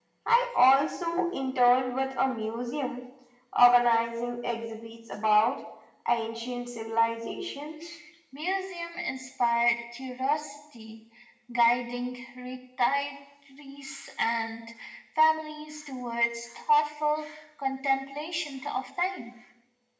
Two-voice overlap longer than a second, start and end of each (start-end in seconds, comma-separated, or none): none